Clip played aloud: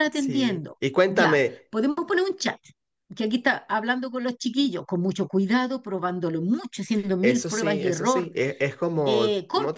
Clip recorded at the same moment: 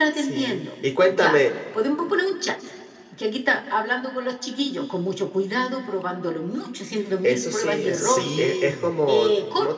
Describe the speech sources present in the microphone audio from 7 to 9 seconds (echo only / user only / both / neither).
both